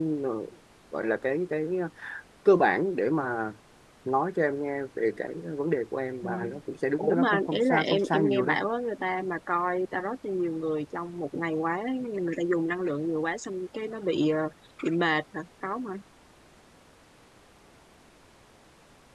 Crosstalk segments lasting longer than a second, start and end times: 7.0-8.6

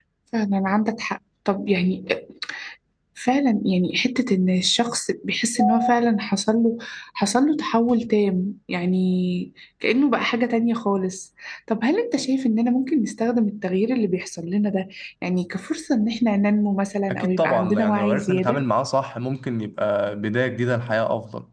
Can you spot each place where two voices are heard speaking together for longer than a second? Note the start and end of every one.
17.1-18.6

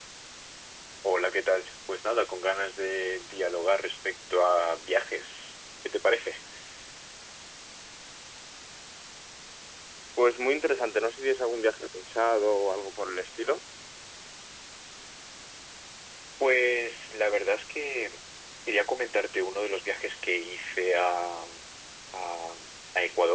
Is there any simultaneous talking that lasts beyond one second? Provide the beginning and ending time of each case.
none

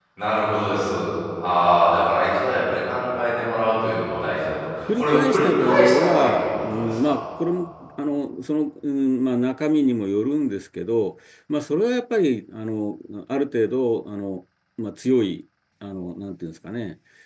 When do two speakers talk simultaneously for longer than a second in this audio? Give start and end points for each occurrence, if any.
5.0-7.2

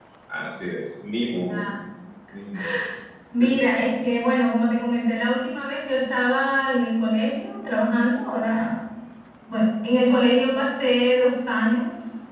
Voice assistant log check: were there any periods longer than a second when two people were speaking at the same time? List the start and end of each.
none

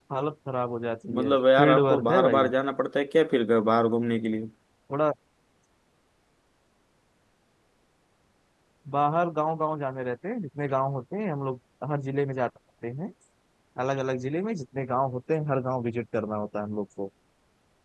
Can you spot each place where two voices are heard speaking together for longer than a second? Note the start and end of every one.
1.1-2.5

